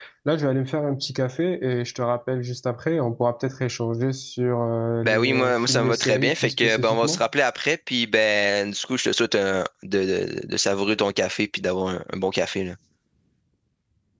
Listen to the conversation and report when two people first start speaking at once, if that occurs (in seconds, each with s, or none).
5.0 s